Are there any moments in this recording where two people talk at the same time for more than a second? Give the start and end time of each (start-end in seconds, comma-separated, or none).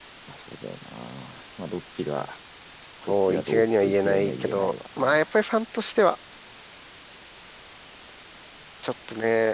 3.1-5.2